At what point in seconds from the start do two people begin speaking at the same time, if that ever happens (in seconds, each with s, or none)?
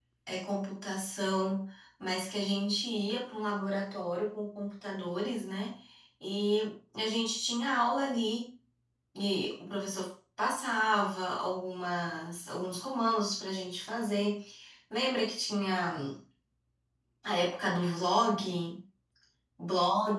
none